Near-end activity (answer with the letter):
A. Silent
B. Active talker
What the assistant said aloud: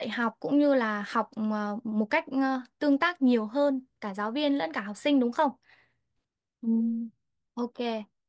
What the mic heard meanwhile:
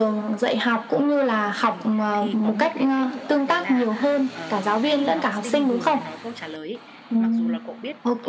B